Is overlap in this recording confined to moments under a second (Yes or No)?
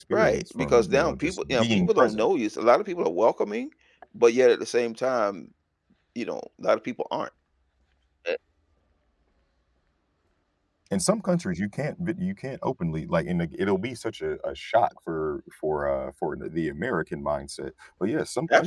No